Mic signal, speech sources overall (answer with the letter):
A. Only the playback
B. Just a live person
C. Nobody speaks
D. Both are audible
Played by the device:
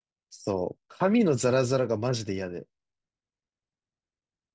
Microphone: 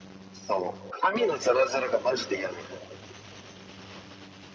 A